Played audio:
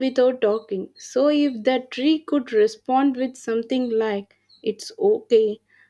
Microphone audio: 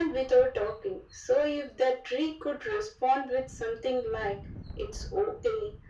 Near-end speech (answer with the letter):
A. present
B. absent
B